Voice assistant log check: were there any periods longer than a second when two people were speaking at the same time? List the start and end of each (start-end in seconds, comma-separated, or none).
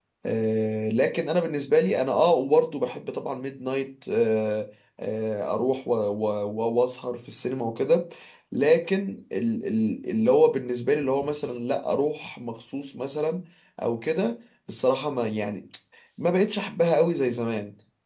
none